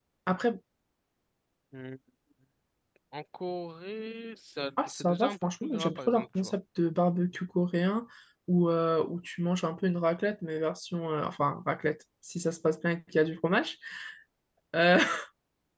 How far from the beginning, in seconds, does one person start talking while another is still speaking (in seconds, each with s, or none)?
4.8 s